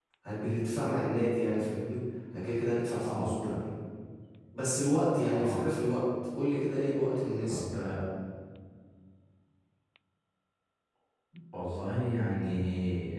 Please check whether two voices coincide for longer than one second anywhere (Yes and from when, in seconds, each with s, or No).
No